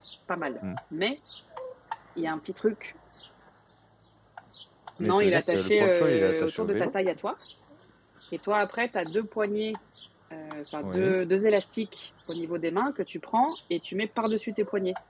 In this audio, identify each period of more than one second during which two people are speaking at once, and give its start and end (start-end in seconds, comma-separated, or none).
5.0-6.9